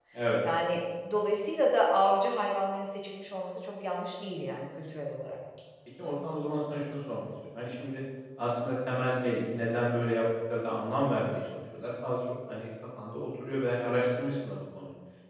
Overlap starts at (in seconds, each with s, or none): none